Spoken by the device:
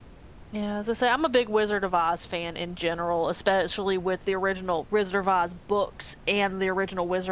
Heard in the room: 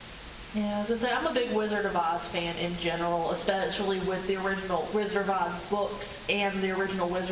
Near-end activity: none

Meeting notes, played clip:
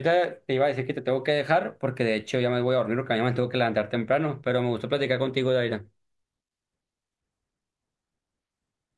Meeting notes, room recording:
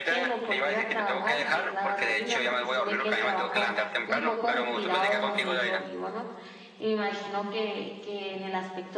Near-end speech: present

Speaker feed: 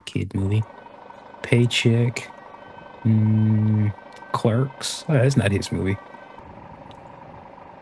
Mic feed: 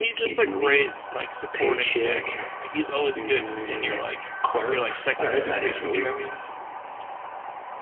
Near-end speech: present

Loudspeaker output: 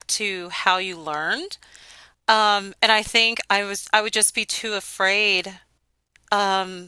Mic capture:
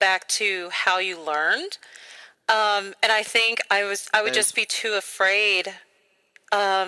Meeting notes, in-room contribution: present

